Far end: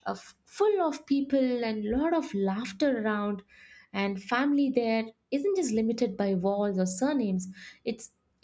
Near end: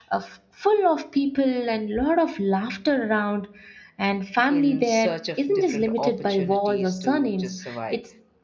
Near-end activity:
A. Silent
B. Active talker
B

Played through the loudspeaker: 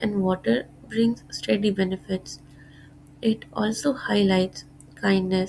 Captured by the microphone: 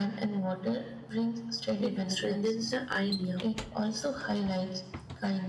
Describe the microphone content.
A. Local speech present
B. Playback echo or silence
A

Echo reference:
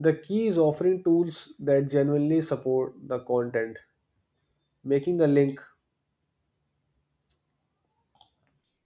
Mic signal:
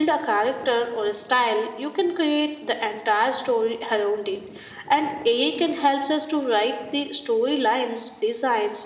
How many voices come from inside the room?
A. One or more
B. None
A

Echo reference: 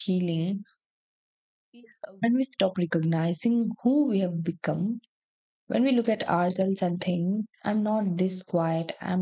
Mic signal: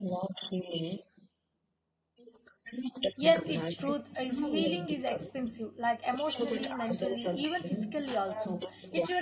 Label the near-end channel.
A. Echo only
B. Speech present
B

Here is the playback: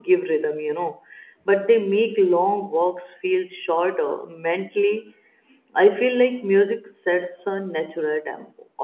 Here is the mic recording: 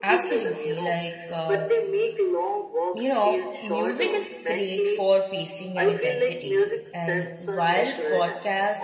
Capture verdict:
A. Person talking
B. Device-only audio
A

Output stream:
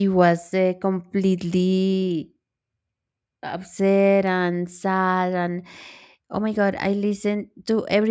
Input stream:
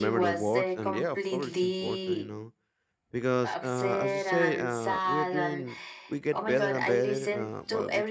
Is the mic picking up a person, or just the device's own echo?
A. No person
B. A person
B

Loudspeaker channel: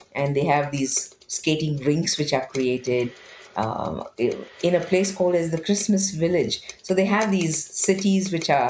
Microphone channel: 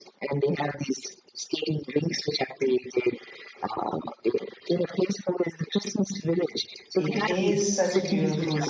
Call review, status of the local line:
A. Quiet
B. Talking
B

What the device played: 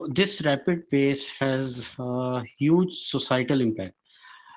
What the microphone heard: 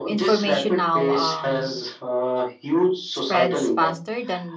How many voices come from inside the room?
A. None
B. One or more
B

